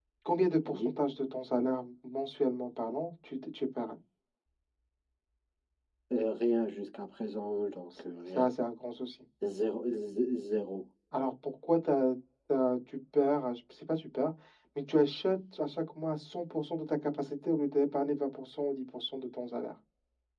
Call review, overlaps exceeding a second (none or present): none